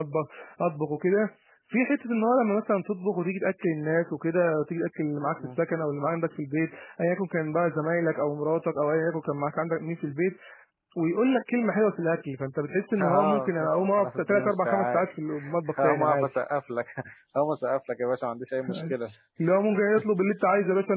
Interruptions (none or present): present